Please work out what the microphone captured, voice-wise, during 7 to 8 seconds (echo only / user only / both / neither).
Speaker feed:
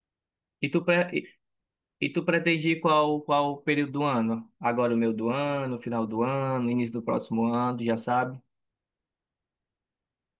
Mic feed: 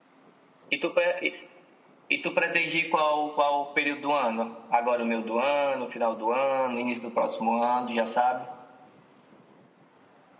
echo only